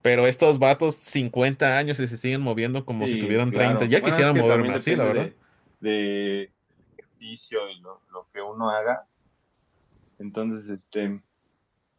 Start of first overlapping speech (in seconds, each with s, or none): 3.0 s